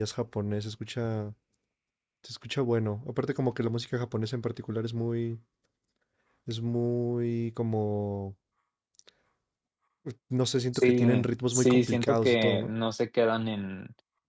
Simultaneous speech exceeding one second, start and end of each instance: 11.5-12.7

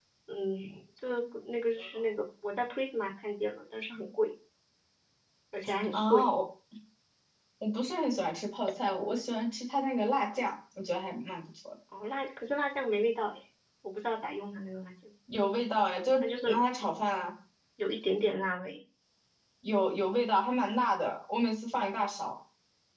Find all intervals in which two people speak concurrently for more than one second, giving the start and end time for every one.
none

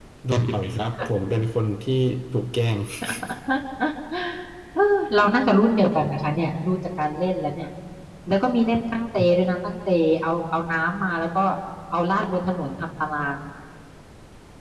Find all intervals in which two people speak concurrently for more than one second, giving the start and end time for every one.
none

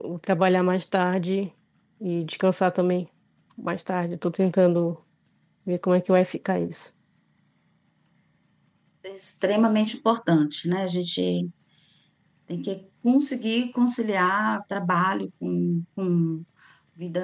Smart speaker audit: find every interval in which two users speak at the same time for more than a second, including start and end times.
none

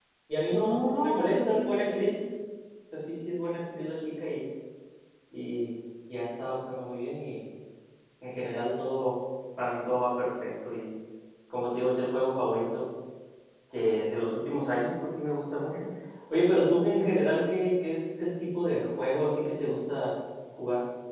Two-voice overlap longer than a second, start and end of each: 0.5-2.1

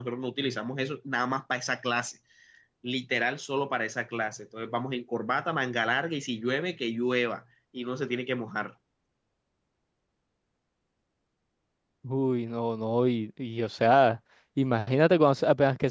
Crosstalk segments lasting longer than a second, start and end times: none

